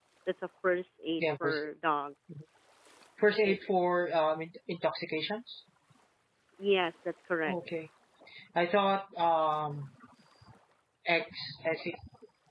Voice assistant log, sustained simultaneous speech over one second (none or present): none